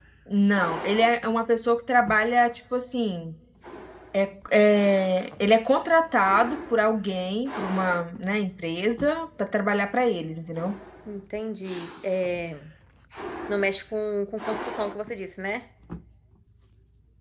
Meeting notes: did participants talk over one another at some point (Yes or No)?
No